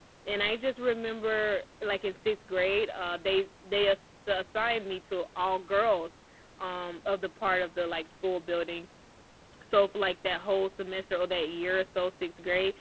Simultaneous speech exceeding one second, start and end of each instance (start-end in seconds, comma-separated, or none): none